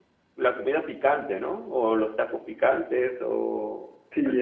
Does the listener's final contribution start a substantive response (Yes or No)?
Yes